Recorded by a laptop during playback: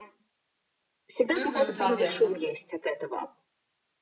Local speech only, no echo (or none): Мгм, да, верно.